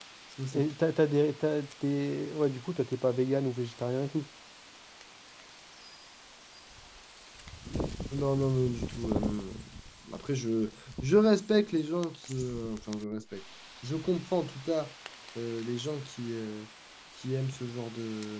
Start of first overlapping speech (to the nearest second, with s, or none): none